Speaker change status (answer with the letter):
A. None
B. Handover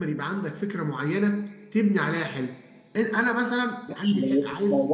B